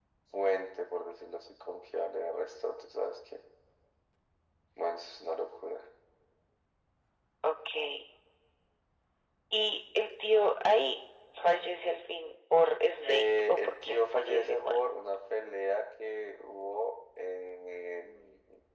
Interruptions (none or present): present